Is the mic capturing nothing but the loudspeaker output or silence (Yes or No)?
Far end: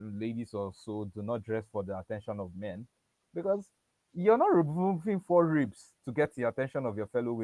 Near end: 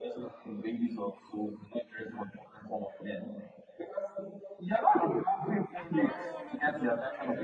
No